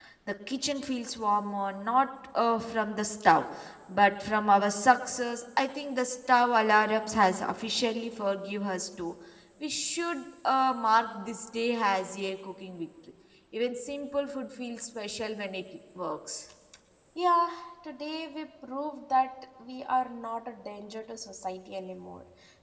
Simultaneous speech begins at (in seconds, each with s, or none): none